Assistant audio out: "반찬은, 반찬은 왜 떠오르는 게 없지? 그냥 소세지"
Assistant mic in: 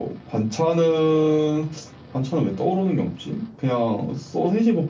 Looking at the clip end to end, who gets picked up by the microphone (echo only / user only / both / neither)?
echo only